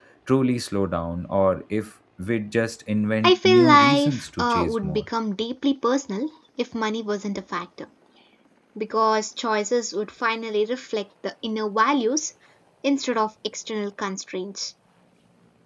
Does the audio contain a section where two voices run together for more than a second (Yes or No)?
Yes